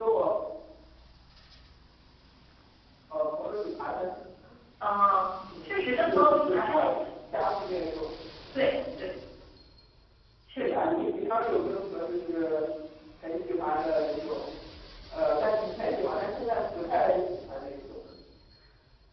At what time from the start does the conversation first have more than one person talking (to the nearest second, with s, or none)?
6 s